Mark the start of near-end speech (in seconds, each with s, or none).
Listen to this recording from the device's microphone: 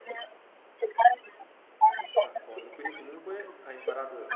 2.2 s